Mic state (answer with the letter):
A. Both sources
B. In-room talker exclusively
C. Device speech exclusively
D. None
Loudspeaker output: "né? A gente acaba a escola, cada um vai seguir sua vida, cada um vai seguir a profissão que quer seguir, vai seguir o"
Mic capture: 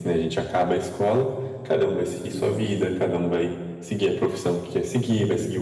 C